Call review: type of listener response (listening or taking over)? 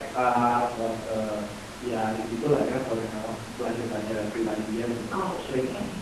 taking over